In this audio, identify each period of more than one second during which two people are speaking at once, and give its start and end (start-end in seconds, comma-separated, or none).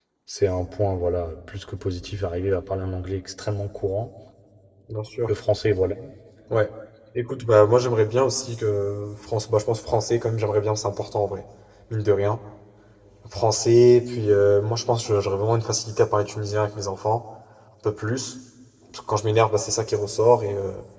none